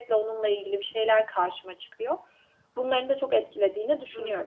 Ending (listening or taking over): taking over